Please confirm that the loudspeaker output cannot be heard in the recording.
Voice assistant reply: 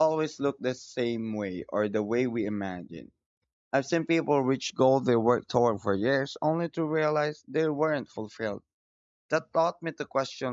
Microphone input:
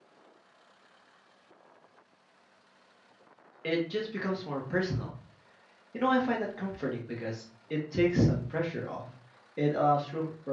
Yes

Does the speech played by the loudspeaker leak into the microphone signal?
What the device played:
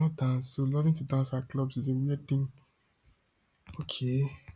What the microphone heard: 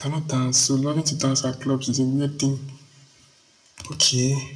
Yes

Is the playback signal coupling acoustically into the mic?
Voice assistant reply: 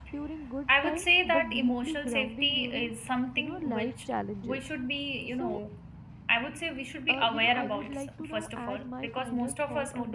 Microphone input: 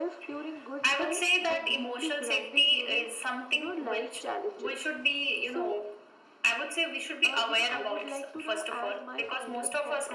Yes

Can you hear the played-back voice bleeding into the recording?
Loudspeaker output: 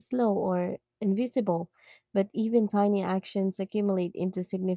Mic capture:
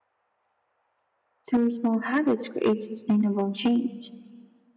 No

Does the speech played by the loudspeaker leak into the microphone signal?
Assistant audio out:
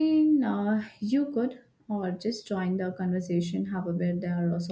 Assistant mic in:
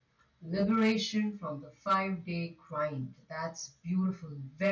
No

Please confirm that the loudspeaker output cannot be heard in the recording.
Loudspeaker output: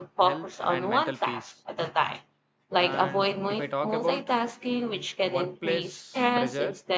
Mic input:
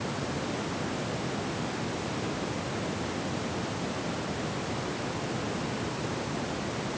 Yes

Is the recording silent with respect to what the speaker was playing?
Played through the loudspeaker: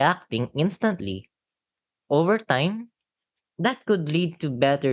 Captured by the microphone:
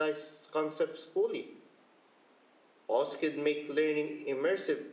Yes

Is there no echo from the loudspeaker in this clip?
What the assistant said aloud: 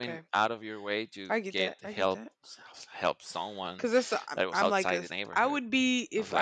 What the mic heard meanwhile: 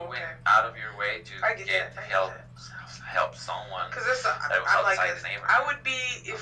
No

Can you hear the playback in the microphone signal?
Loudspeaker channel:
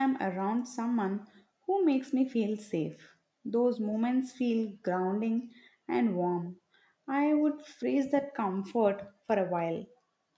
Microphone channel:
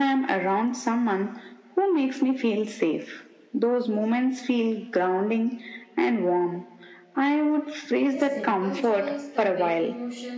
Yes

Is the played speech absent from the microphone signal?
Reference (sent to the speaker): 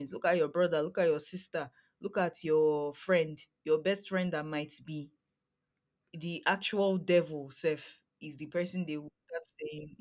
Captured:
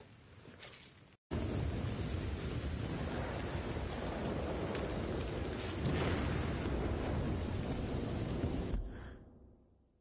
Yes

